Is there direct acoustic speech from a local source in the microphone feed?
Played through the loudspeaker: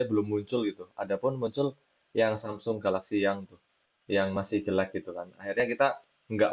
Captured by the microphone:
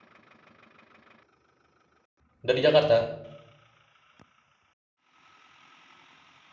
Yes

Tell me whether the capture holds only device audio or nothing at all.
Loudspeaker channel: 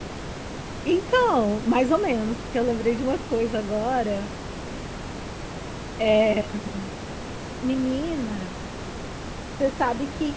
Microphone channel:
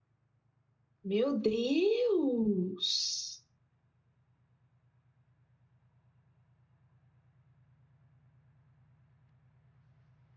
No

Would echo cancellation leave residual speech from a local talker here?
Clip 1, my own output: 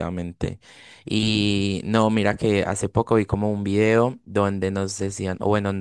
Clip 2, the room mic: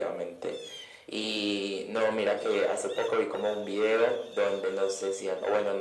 No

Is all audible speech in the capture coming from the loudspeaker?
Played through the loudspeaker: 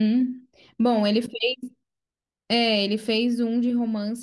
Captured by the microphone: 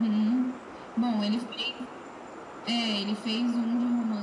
Yes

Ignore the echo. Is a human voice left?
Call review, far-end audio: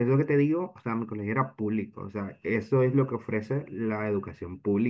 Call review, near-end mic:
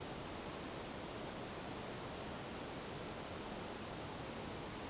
No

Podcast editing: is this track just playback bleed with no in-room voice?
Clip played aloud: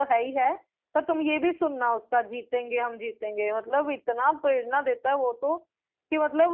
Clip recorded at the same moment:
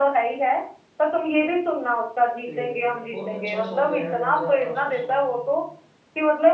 No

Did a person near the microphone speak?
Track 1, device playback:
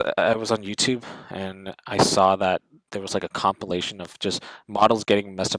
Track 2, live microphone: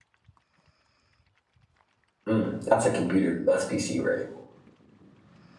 Yes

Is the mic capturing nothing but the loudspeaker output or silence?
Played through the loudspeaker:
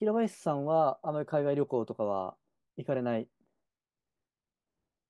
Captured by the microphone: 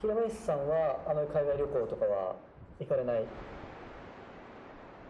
Yes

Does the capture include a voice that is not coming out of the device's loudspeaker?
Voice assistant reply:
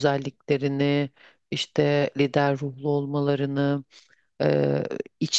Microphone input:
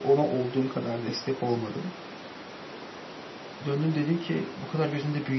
Yes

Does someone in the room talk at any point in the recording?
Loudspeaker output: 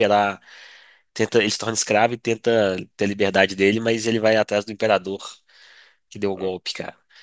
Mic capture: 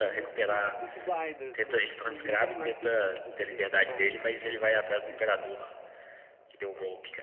Yes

